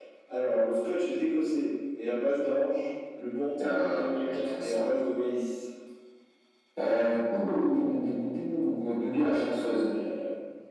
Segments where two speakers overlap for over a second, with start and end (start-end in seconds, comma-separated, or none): 3.6-4.9